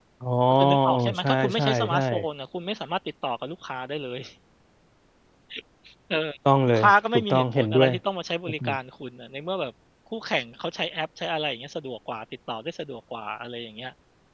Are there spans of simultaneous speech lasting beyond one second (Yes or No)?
Yes